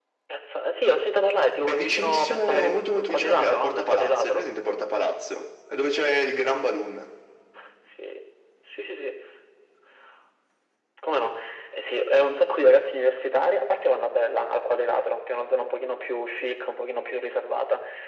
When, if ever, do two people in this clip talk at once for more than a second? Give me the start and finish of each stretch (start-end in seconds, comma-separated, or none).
1.7-4.5